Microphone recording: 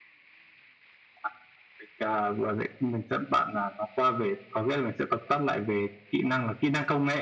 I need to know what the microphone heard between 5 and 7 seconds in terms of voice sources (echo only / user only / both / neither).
echo only